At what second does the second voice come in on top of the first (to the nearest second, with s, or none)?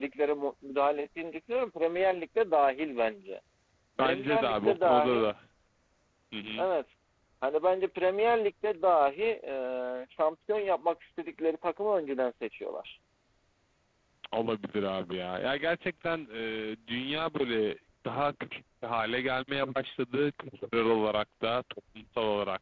4 s